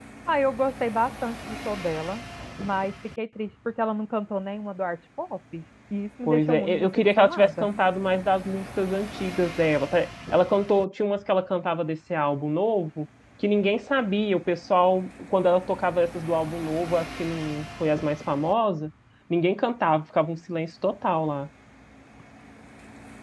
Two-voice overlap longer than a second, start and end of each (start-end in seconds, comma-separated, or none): 6.3-7.7